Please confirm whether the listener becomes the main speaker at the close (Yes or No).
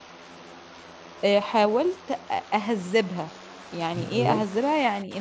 No